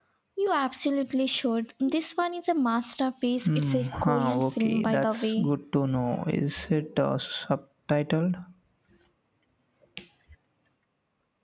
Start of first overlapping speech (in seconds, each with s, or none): 3.5 s